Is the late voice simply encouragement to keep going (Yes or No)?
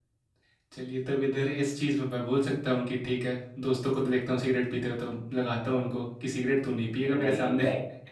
No